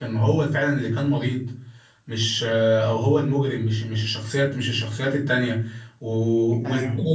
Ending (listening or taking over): listening